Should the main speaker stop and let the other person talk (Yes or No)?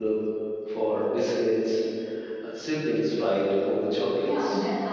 Yes